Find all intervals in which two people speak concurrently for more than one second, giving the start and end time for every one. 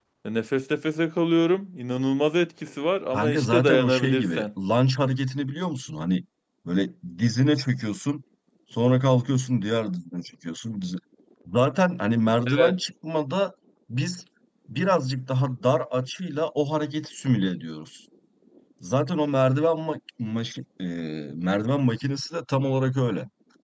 3.1-4.5

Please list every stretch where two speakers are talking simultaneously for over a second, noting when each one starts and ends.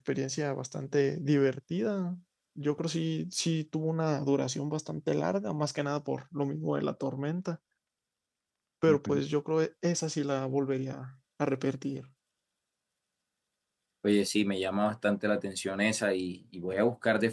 none

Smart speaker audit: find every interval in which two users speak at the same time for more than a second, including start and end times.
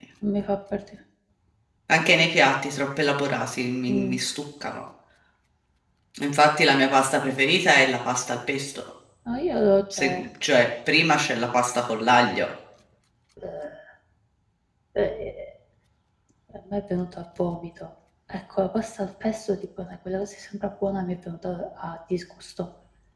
none

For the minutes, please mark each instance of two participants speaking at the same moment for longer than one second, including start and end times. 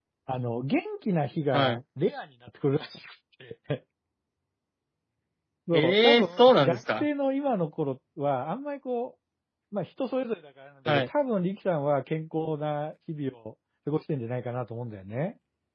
5.7-7.0

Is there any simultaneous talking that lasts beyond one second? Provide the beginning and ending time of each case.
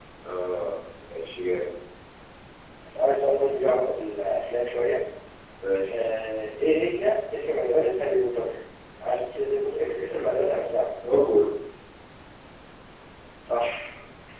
none

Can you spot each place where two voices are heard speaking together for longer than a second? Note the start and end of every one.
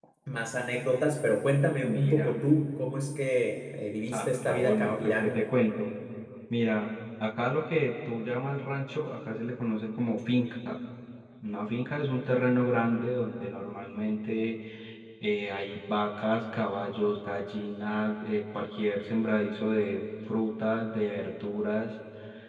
4.1-5.4

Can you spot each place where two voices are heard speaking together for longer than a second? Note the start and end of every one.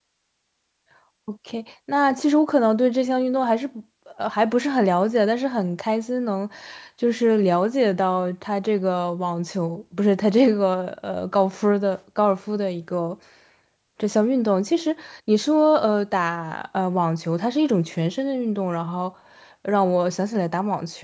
none

